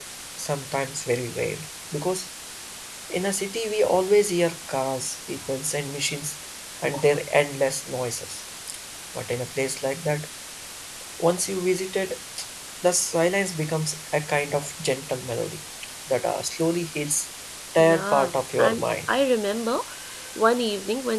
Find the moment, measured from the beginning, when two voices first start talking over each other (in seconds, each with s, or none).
17.8 s